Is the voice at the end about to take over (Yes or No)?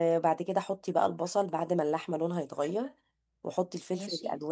No